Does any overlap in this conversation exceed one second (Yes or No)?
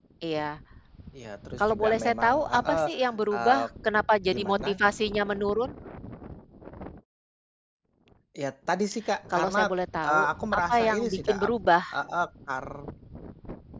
Yes